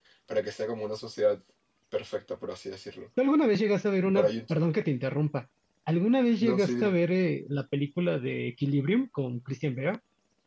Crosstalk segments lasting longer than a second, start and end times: none

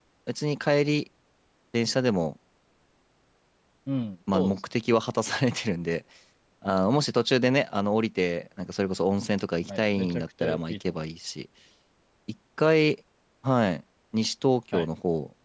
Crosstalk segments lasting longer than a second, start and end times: 9.7-10.9

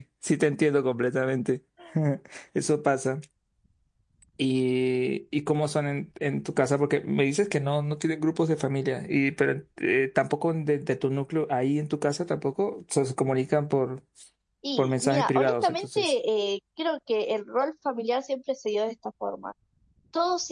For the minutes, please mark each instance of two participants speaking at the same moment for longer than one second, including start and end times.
14.8-16.0

